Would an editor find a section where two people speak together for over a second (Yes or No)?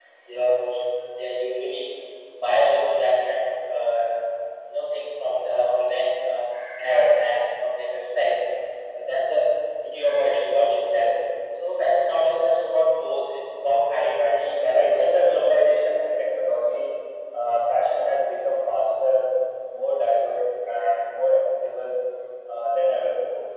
Yes